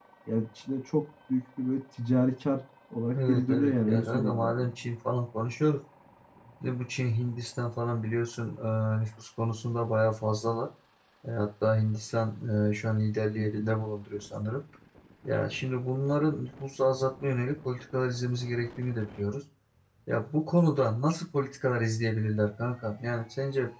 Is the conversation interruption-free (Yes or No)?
No